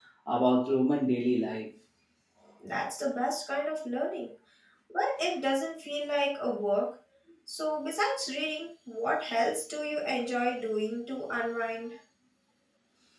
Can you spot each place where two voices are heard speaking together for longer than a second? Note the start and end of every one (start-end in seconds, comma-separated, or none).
none